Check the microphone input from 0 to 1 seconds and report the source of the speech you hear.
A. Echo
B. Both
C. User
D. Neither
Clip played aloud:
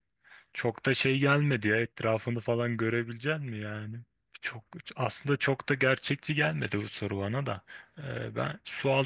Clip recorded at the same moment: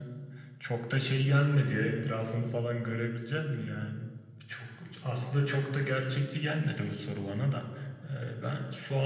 A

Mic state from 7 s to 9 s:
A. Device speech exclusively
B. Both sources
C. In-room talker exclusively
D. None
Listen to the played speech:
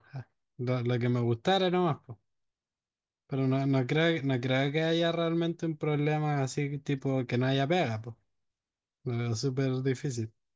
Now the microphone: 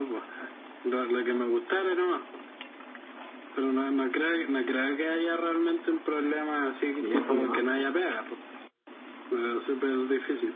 B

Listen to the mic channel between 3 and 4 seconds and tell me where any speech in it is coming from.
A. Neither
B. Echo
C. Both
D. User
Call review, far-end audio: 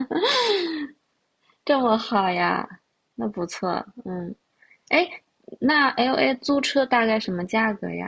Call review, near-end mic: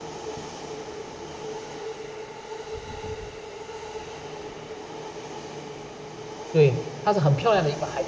A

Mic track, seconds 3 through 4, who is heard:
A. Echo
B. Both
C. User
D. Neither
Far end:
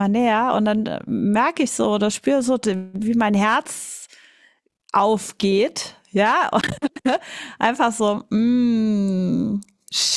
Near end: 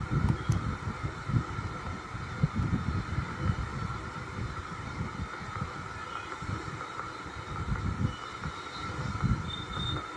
D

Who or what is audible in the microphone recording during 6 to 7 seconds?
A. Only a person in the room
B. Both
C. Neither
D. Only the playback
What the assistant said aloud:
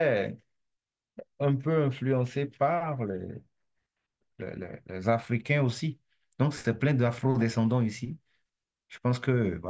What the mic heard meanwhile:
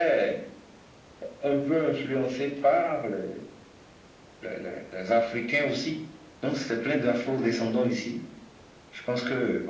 D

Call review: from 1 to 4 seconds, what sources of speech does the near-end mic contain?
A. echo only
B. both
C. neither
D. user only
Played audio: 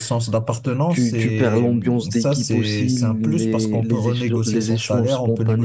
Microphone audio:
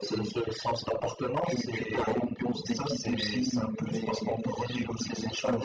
A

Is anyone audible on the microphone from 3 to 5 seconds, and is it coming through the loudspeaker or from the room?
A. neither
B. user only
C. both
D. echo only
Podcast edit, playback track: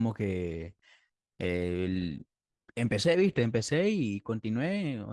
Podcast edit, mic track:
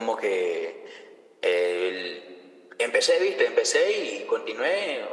D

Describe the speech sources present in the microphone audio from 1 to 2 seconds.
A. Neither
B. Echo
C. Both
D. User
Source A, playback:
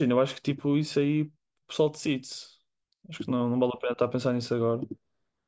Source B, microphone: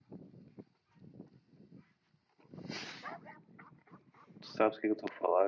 A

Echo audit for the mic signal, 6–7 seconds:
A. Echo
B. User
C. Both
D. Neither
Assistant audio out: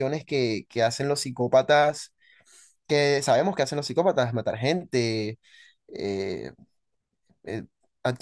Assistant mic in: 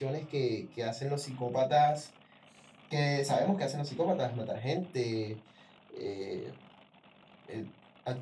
A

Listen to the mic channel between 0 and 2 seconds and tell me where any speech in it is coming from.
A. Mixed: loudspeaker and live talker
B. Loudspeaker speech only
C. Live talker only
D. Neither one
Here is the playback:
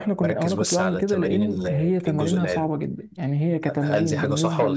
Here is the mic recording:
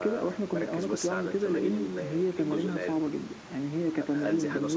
B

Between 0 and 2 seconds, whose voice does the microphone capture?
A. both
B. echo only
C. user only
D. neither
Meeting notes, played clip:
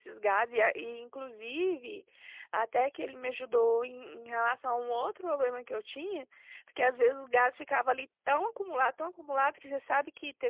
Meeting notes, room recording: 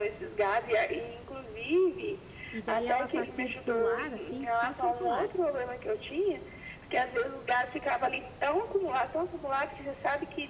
B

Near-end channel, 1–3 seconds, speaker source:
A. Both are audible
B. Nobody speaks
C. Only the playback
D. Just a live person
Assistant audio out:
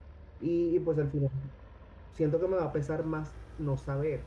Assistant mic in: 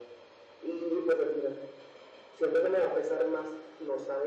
C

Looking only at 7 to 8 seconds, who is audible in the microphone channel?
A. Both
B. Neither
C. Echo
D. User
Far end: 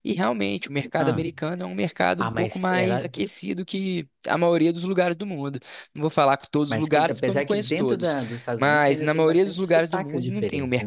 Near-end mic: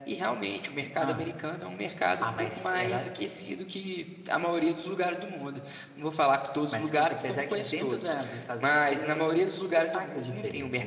C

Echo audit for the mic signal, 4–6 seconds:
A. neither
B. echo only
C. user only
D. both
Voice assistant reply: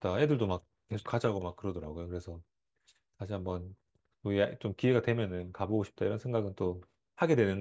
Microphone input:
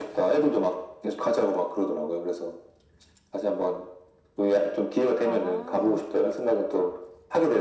D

